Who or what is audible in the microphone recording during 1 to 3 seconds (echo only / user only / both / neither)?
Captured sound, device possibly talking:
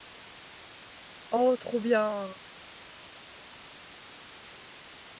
user only